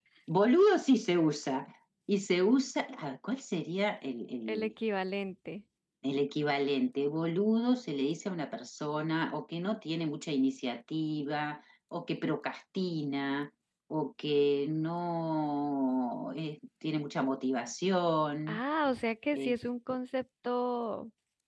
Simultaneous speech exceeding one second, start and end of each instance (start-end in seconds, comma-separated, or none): none